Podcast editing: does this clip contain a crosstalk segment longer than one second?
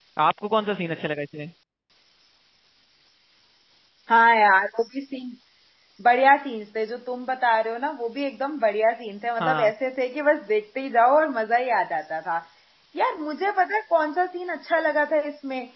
No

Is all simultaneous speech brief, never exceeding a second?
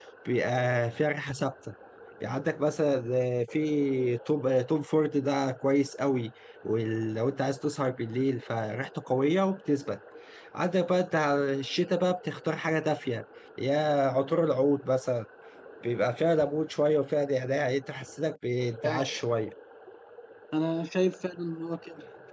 Yes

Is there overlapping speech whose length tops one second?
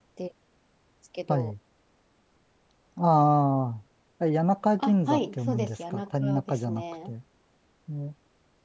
Yes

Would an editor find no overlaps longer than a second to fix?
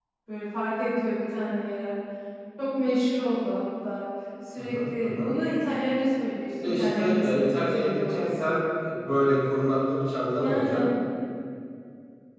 No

